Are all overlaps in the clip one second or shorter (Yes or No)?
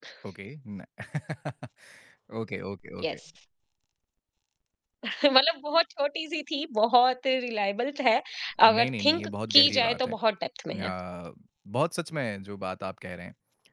No